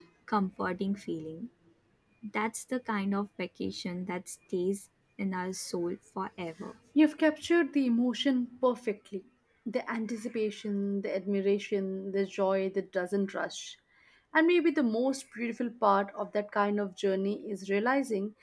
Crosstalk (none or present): none